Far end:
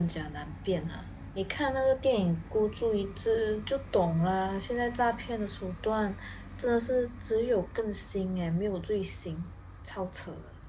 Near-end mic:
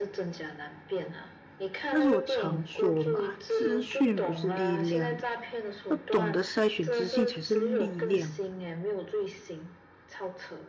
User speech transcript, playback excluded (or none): 但是我常说嘛，资讯不是力量，要懂得筛选资讯才是力量。